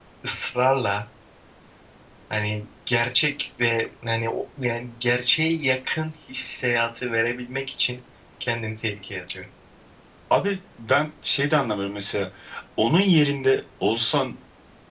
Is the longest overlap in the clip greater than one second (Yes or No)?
No